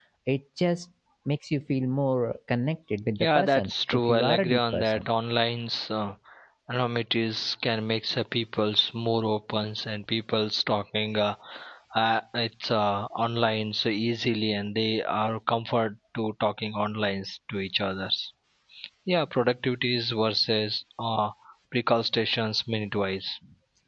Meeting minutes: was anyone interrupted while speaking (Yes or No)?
Yes